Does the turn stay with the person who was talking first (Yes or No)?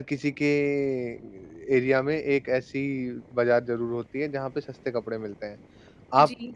Yes